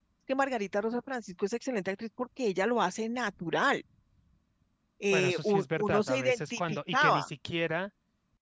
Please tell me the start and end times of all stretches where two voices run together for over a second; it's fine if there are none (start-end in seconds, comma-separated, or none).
5.1-7.3